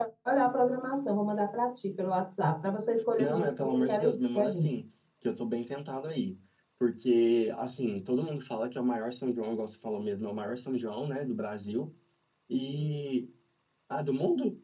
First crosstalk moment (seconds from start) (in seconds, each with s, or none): 3.2 s